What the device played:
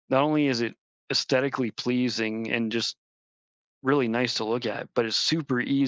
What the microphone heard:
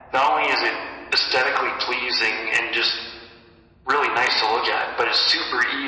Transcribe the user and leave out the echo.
none

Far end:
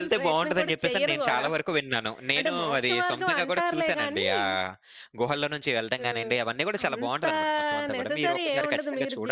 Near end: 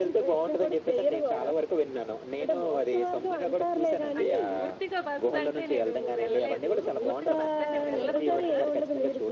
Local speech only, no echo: అంటే పూర్తిగా బస్సంటే నేను వెళ్ళలేదు. పూర్తిగా బస్సంటే వెళ్ళను కూడా.

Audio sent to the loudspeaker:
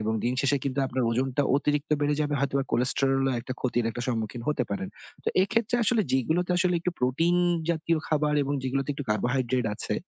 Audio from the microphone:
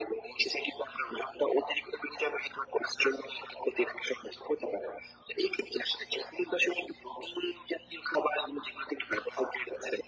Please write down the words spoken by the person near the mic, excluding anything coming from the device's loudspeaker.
none

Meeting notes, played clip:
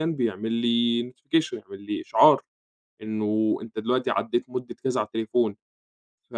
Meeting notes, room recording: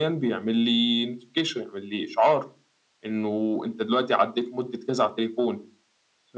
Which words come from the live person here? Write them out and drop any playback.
none

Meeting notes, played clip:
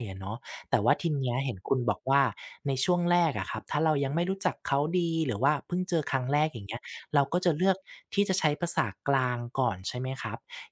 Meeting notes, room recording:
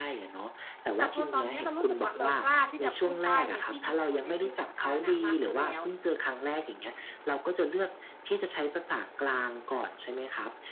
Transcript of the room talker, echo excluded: แต่พอตอนเนี้ยเรารู้สึกว่าเรากล้าที่จะพูดใต้ในที่ชุมชนในที่สาธารณะมากขึ้นแล้ว

